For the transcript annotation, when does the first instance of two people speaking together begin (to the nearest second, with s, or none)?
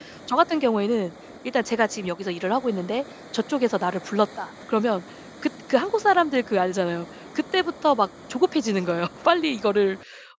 none